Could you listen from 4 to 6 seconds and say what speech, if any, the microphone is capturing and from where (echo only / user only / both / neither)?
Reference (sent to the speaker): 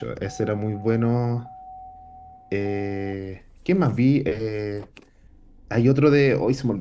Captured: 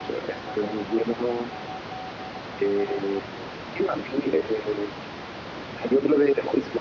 echo only